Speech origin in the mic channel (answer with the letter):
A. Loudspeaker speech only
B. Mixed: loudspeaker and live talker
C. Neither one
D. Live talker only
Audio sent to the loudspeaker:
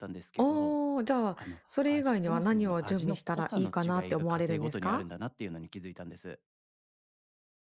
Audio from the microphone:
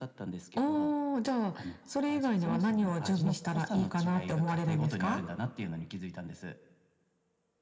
A